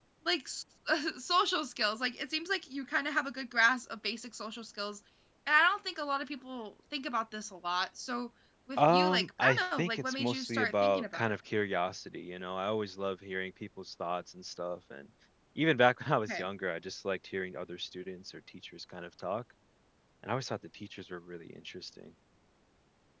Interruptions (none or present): present